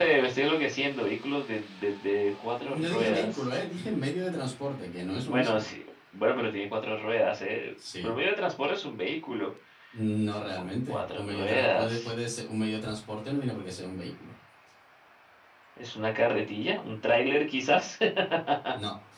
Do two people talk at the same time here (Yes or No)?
Yes